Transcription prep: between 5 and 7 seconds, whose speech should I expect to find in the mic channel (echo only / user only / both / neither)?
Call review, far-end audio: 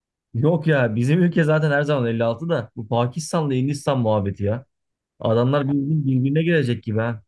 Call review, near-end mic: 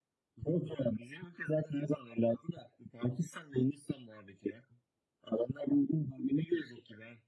echo only